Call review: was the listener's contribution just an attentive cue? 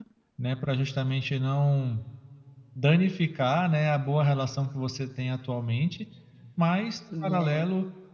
Yes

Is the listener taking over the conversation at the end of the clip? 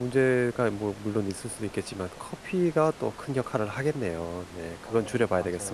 Yes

